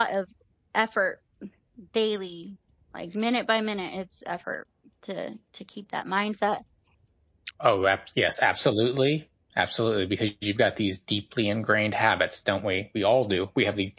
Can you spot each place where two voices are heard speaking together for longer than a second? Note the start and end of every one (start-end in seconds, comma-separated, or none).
none